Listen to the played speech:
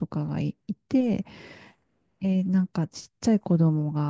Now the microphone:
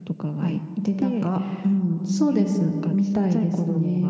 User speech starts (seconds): 0.4 s

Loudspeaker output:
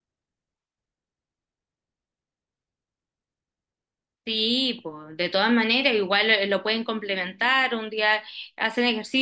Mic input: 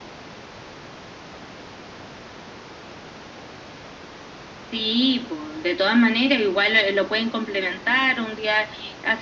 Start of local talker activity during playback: none

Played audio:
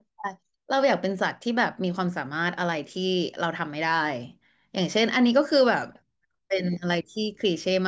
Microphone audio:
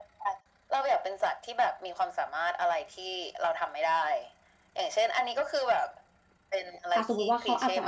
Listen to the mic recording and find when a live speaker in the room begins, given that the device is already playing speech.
6.9 s

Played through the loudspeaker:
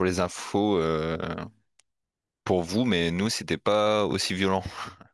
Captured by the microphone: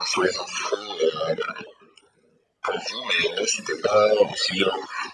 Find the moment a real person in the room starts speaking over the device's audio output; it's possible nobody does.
none

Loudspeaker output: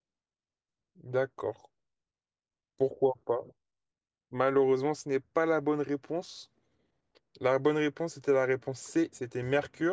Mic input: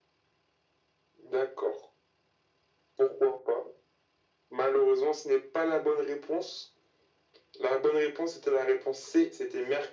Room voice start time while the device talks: none

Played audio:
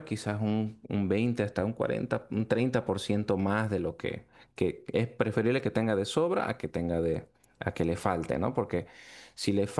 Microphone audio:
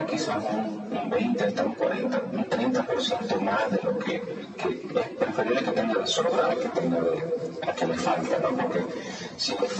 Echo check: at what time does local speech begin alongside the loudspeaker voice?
none

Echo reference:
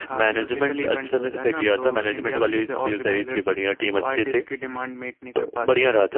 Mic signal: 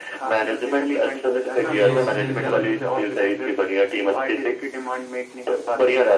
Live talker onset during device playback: 1.5 s

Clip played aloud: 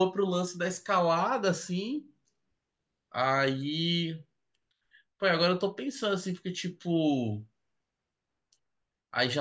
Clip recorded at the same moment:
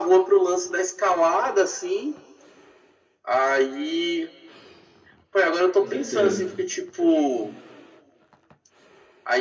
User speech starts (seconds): 5.7 s

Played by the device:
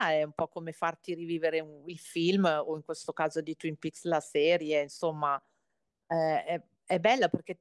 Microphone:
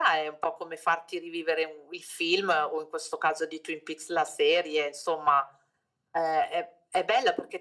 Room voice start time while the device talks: none

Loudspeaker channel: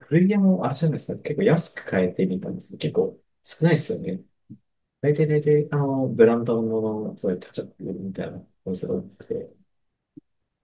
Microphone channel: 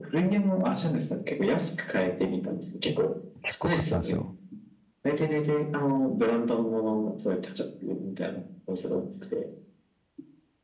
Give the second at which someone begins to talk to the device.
3.4 s

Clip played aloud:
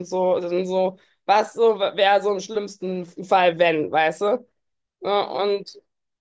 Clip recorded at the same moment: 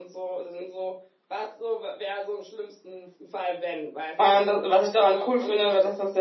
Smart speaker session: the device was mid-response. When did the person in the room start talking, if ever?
4.2 s

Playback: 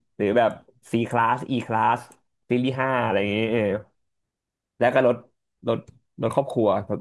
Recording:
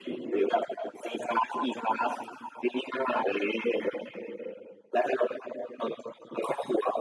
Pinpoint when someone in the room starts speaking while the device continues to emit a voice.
none

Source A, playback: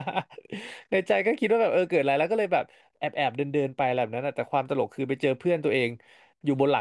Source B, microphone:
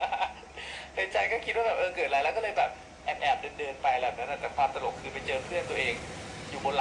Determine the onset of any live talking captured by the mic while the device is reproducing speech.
none

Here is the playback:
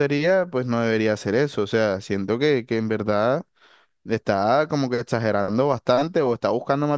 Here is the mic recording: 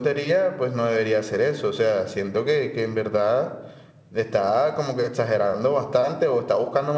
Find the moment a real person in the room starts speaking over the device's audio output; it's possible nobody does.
none

